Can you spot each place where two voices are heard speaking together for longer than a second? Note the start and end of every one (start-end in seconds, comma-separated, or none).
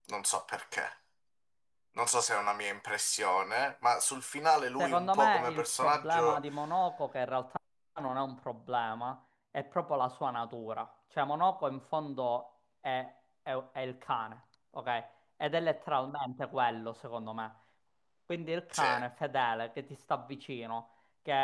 4.8-6.4